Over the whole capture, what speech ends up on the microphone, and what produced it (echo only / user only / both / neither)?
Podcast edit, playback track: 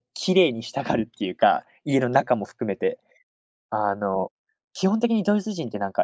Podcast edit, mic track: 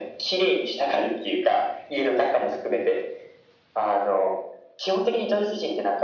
echo only